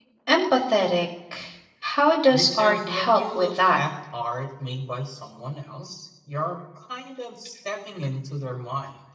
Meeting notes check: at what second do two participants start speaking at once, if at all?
2.3 s

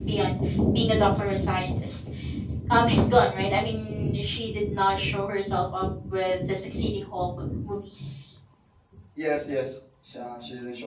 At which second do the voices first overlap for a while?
none

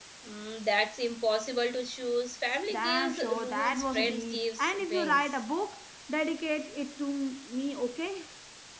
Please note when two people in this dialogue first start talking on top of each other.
2.7 s

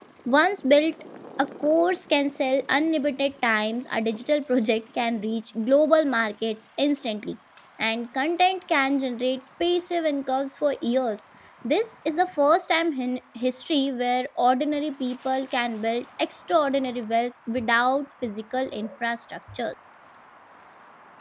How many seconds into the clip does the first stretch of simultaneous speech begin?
none

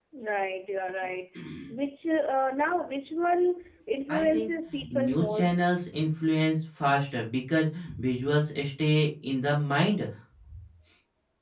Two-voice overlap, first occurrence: 4.1 s

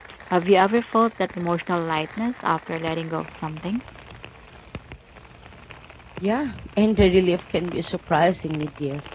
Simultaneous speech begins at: none

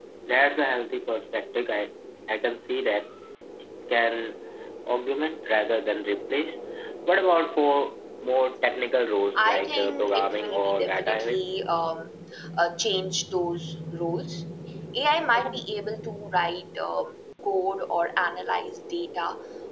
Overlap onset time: 9.4 s

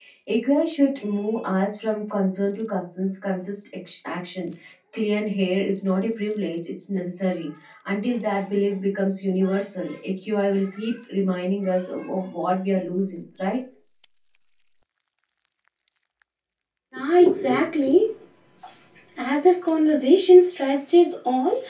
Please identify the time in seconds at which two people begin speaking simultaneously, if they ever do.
none

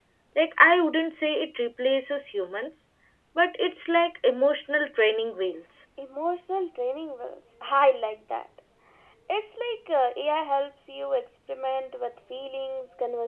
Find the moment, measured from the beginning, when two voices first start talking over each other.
none

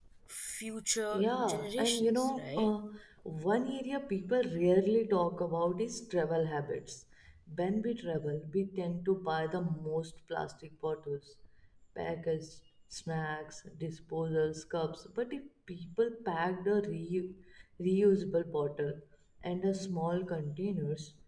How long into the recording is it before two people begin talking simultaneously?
1.1 s

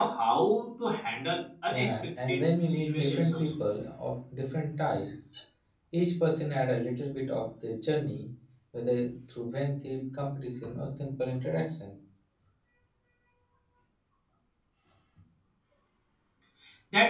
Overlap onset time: 1.7 s

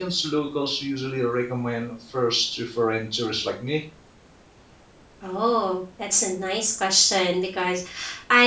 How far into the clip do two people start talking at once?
none

